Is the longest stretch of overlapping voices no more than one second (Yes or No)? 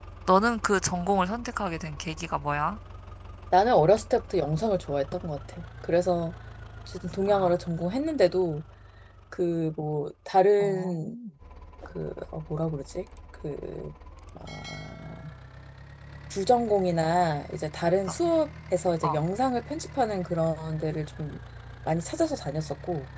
Yes